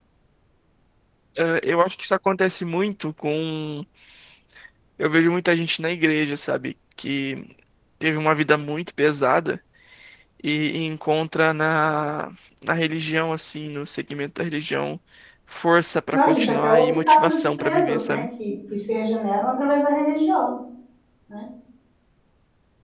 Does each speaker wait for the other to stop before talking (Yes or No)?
No